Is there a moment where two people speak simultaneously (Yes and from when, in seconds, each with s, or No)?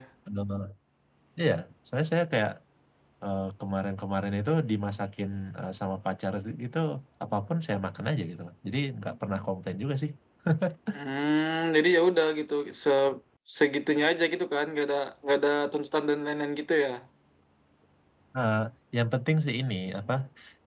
No